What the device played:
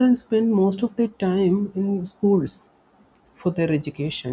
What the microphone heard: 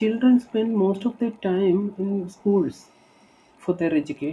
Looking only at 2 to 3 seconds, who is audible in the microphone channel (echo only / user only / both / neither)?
echo only